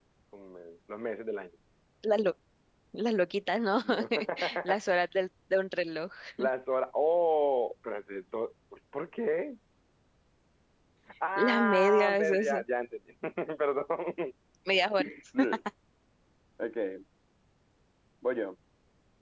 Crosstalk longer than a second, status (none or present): present